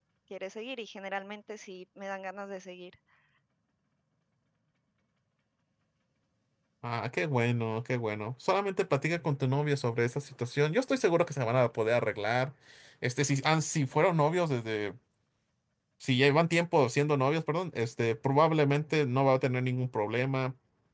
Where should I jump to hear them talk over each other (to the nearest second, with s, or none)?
none